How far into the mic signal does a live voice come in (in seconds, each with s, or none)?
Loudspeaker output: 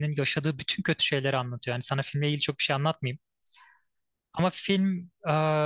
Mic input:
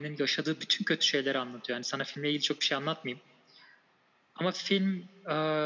none